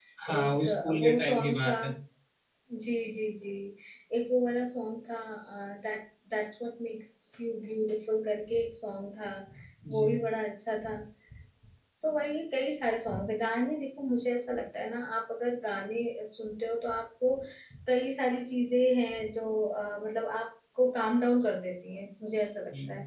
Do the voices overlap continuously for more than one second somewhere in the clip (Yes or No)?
Yes